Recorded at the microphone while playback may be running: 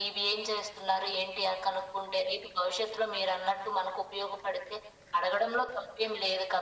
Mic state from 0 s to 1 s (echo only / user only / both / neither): echo only